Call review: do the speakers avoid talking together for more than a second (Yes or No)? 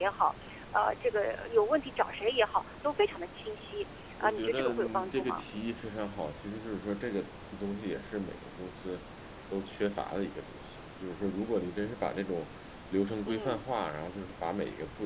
No